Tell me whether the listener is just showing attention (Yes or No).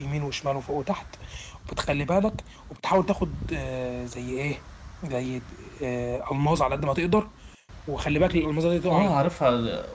No